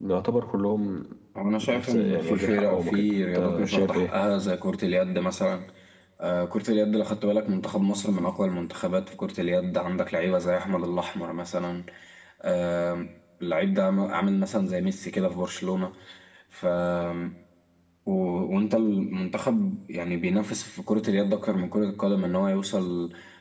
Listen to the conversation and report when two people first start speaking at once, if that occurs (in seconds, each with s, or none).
1.7 s